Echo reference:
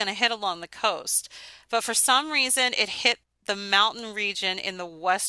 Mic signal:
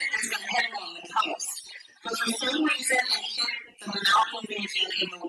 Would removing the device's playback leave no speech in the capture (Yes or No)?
Yes